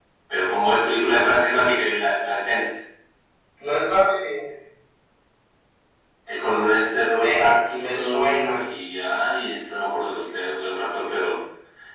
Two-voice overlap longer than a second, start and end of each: 7.2-8.5

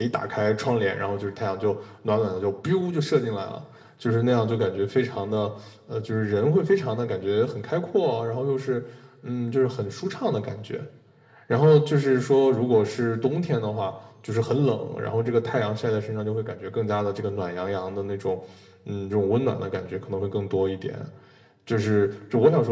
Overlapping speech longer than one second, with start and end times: none

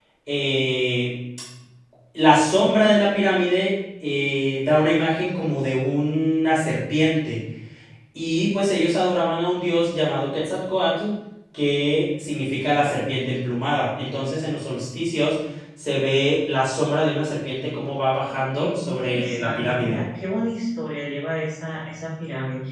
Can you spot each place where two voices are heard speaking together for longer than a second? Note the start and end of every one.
18.3-20.0

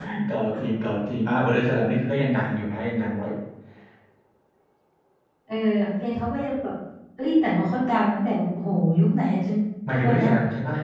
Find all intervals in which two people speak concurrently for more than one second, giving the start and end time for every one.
none

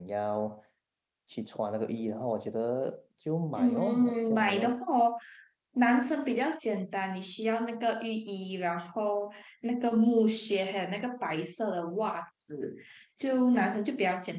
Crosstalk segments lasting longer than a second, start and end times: 3.5-4.8

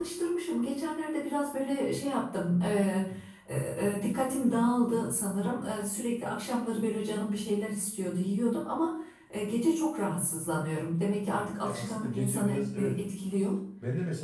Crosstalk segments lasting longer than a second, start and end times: 11.6-12.9

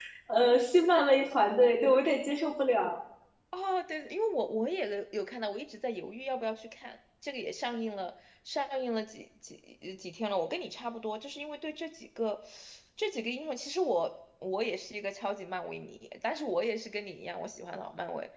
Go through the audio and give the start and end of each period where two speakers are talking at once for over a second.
none

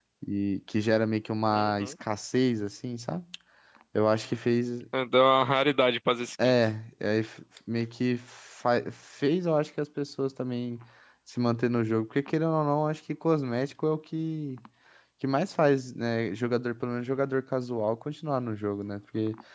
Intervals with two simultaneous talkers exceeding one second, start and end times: none

